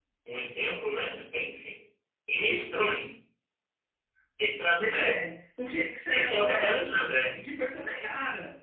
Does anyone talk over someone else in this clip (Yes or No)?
Yes